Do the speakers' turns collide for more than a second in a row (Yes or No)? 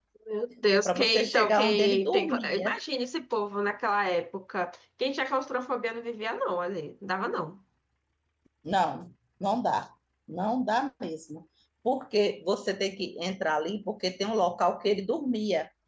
Yes